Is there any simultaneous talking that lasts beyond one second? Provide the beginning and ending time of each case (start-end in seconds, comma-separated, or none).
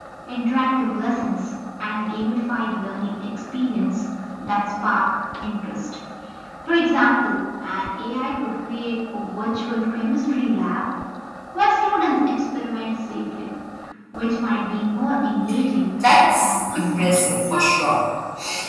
16.4-17.8